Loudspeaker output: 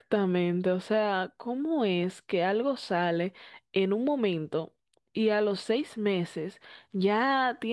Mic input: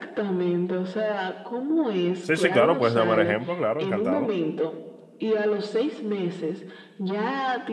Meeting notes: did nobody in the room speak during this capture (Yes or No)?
No